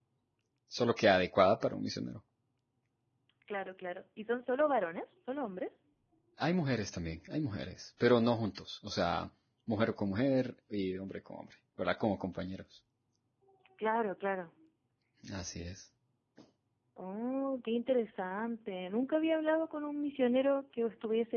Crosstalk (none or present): none